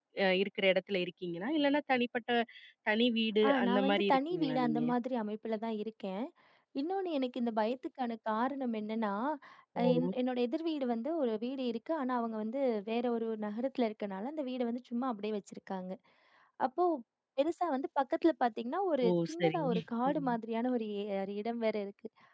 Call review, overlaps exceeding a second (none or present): present